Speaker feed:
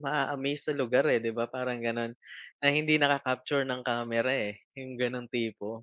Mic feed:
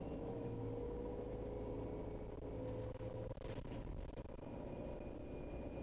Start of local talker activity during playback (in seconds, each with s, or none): none